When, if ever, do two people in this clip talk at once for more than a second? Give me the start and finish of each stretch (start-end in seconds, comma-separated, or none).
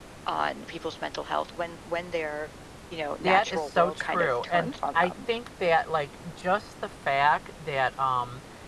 3.2-5.1